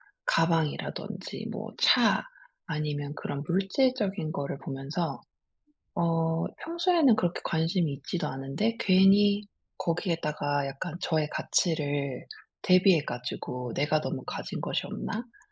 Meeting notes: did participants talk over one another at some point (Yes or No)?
No